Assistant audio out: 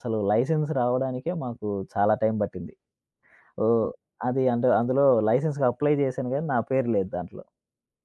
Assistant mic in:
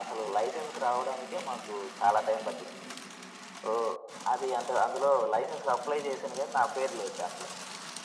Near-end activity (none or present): none